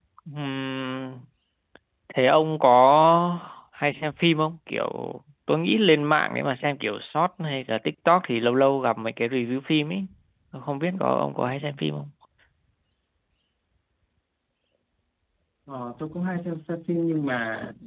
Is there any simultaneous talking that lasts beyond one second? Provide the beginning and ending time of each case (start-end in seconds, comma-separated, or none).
none